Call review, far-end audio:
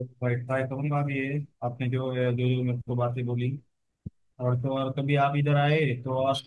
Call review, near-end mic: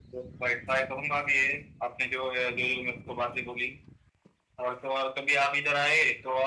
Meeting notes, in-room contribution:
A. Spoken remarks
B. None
B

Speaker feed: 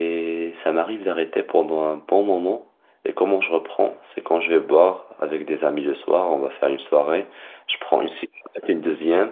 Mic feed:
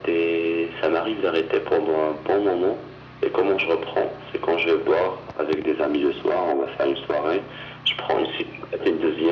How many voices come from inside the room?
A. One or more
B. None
B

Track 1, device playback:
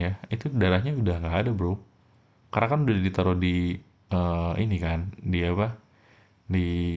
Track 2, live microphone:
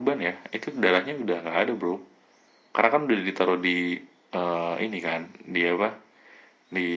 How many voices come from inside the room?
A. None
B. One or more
A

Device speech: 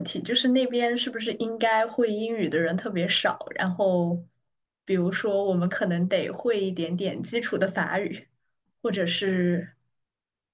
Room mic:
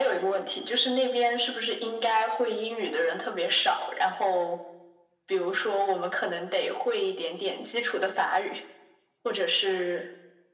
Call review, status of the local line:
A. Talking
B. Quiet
B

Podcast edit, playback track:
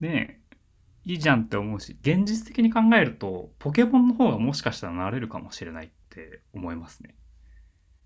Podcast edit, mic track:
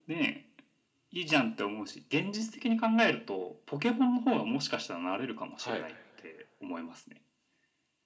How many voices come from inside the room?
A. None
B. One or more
B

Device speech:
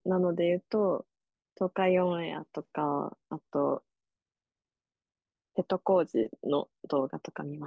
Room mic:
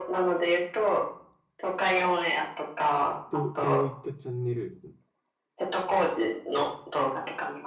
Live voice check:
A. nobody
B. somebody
B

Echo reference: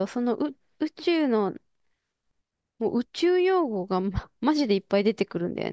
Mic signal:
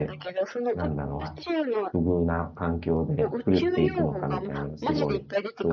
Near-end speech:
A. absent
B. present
B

